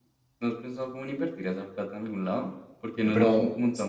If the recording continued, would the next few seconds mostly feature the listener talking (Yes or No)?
No